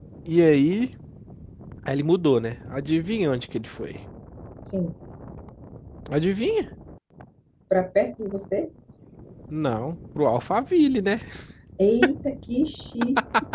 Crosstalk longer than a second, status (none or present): none